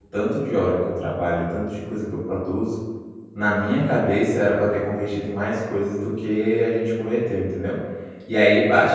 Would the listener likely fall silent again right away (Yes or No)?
Yes